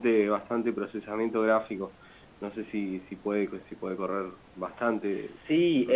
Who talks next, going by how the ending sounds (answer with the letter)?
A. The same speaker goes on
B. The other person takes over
B